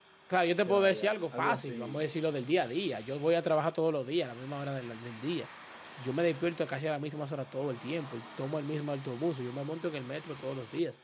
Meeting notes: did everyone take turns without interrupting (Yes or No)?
No